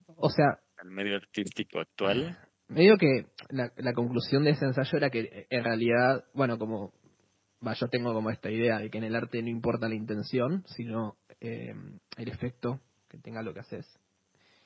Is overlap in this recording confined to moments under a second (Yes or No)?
Yes